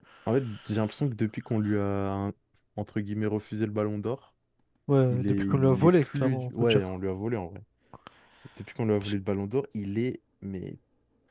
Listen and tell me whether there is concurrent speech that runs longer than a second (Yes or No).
Yes